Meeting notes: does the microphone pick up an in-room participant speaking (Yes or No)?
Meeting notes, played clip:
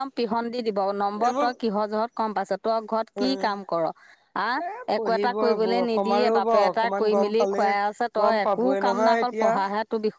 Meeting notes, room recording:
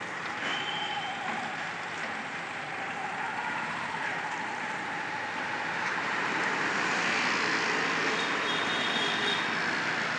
No